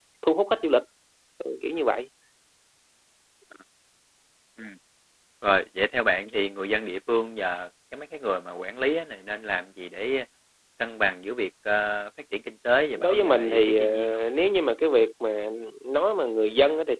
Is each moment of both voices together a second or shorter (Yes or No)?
No